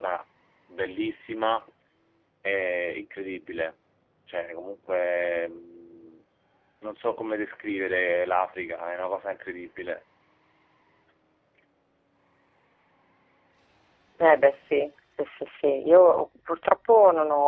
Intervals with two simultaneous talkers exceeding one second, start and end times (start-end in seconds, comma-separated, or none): none